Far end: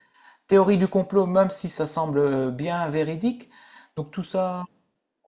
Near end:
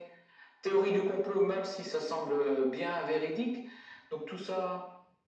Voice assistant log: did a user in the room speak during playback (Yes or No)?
No